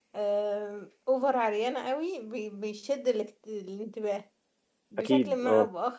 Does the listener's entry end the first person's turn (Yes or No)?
No